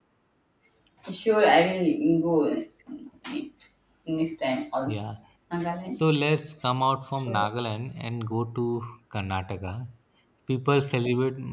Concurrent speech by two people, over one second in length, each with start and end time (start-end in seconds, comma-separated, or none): none